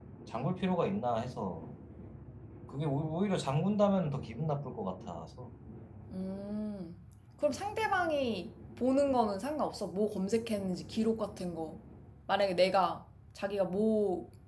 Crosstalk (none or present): none